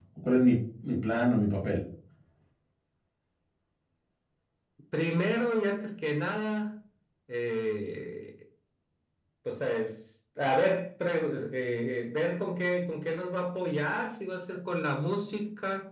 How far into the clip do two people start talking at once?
none

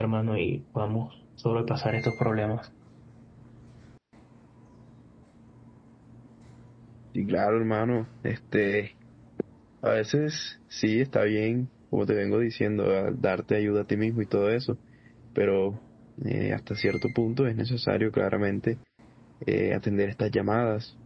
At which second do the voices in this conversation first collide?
none

